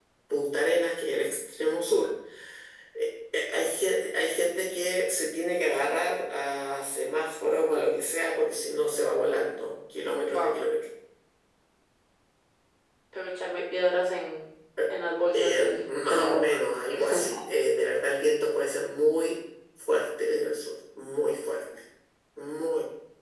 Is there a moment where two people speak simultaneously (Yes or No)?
Yes